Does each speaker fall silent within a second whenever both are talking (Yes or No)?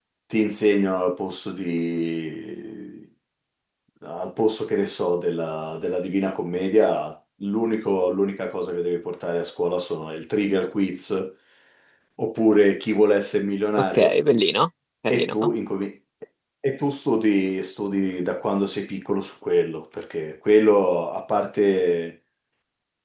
Yes